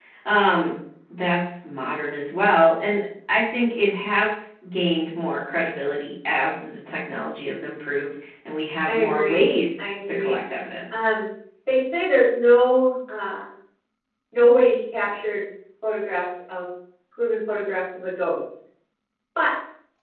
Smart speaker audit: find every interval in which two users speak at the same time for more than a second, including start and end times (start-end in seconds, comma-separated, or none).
8.9-10.4